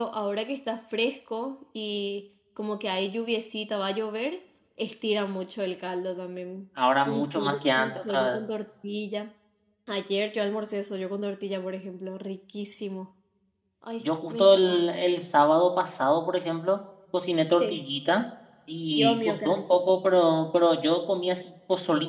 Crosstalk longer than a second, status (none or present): present